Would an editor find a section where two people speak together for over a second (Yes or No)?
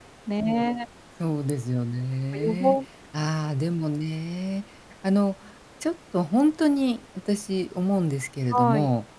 No